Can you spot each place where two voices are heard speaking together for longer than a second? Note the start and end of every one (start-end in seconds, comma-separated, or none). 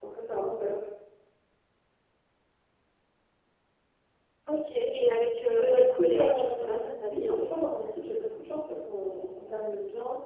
5.6-7.4